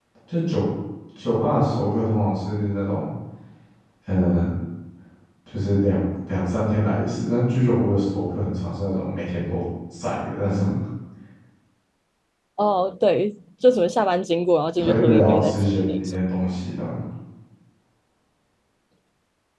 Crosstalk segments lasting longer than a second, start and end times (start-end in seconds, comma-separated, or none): 14.8-16.2